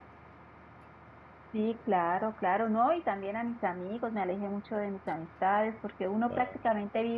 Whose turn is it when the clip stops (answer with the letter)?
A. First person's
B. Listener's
A